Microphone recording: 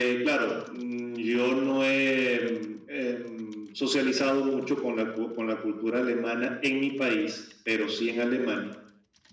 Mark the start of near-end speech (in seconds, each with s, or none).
none